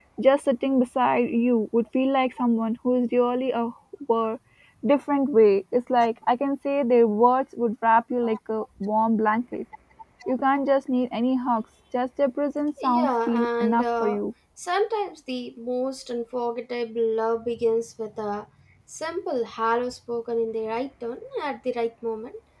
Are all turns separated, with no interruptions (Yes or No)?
No